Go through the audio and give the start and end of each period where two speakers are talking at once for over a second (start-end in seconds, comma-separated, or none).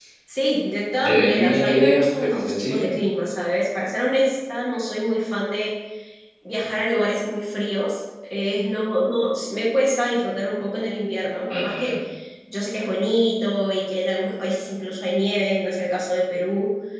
1.0-2.8